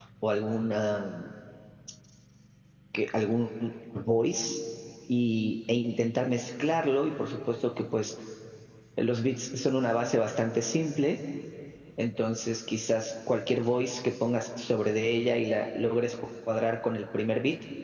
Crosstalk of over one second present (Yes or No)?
No